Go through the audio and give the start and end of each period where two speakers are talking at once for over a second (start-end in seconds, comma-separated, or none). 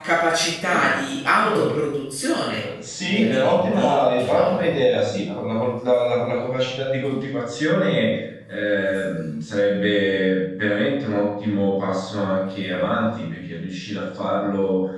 3.1-4.7